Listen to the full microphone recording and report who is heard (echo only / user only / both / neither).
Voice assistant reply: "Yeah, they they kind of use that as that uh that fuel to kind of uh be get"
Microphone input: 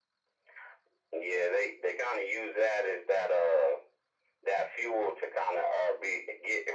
echo only